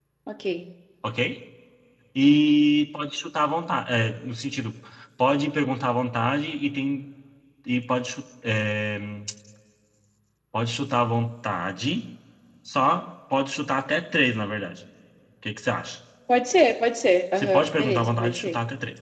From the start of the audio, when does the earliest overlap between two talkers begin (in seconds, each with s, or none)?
17.4 s